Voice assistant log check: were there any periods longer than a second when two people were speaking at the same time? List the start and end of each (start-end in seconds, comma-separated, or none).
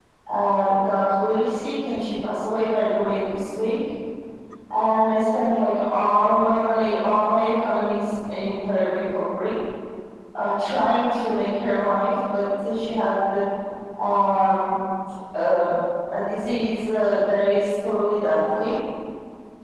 none